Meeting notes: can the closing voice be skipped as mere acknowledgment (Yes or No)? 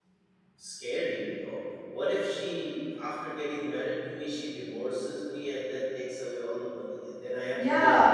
No